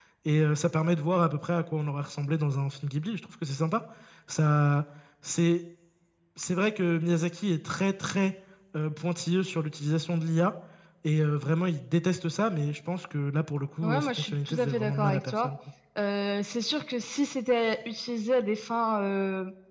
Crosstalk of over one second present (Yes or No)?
Yes